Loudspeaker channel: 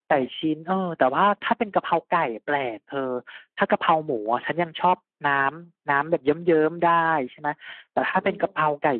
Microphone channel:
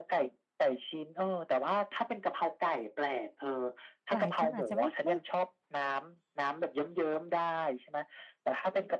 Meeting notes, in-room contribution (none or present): present